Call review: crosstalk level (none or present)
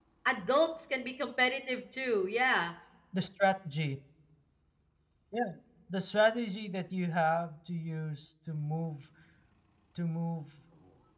none